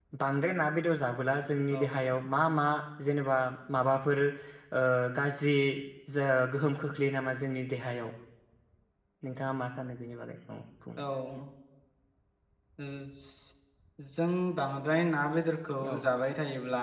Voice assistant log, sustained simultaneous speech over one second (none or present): none